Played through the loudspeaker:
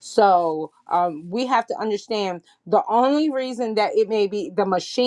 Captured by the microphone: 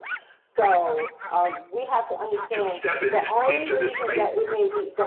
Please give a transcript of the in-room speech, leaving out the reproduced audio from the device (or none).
to step in, into this space